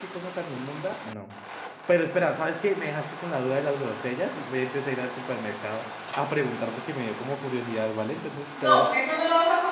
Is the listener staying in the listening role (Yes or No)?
No